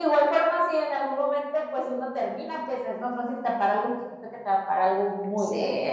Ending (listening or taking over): taking over